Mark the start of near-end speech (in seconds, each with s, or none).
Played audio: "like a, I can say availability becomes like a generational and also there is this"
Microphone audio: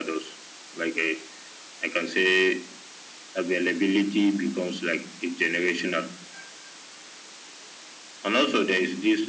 none